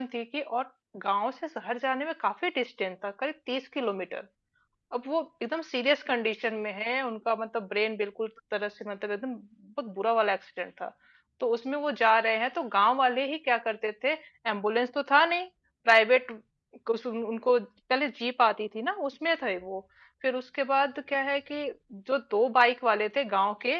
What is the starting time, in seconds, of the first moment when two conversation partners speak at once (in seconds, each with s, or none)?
none